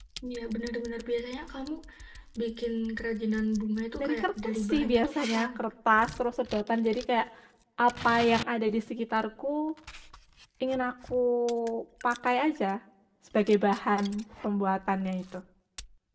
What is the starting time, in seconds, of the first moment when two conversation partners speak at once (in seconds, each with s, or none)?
4.0 s